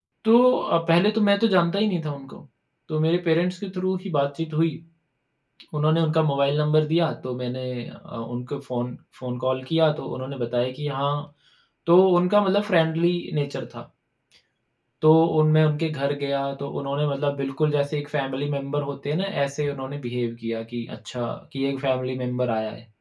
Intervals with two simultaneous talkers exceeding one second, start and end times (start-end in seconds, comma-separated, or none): none